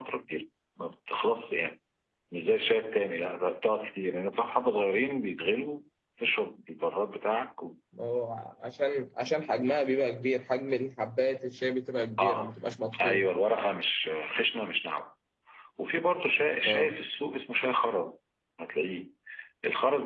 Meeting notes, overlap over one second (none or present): none